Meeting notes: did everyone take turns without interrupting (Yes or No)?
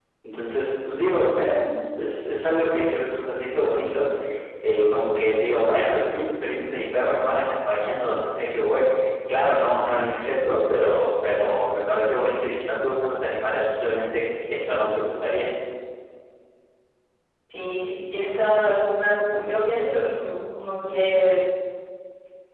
Yes